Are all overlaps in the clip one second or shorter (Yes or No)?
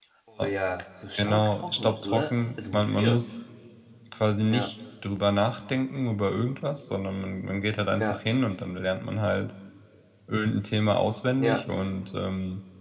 No